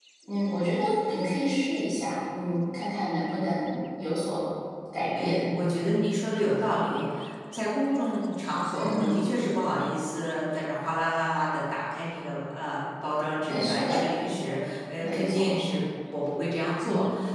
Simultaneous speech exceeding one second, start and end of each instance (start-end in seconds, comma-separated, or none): none